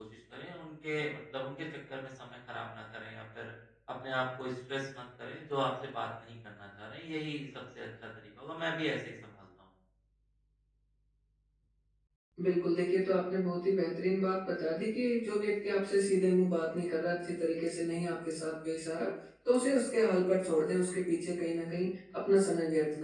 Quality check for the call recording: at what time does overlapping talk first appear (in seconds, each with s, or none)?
none